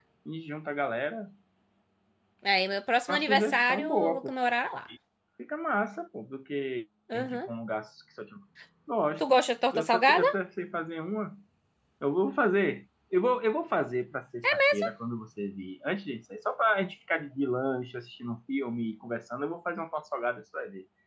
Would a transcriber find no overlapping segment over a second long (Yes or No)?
No